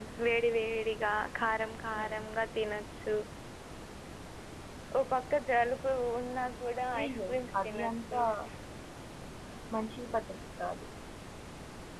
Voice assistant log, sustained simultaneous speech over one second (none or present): present